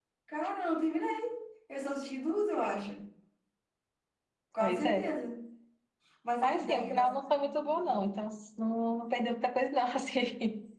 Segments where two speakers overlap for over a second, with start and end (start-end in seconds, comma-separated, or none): 6.4-8.1